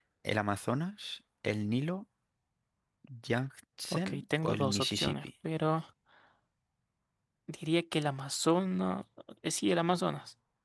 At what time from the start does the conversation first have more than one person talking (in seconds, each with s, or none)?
3.9 s